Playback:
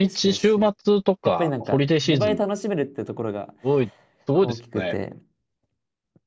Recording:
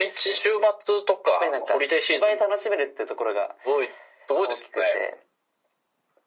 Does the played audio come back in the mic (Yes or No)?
Yes